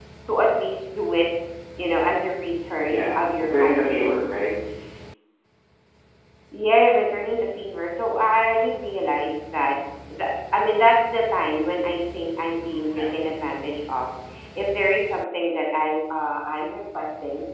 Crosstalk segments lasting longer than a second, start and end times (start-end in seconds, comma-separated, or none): 2.9-4.3